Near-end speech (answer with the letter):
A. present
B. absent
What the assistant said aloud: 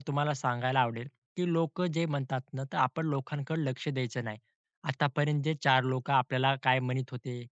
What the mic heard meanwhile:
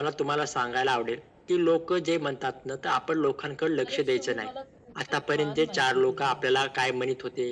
A